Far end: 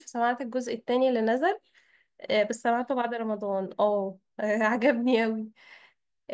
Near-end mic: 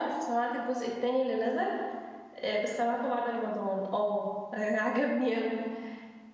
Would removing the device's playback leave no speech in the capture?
Yes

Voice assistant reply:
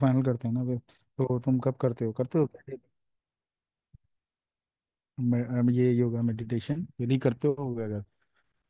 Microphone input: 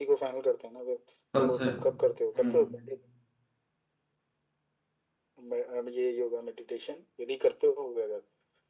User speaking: Yes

